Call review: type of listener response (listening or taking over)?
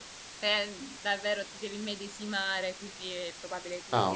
taking over